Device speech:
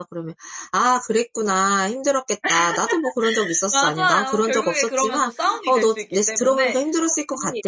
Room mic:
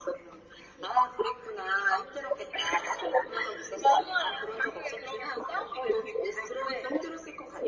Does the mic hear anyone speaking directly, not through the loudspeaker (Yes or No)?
No